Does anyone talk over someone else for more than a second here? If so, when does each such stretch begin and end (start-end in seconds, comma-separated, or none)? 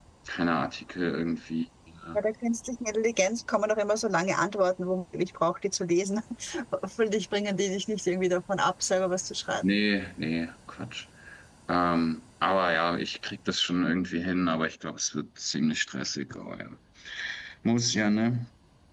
none